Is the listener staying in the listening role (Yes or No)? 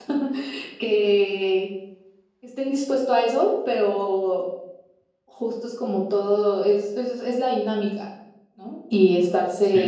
Yes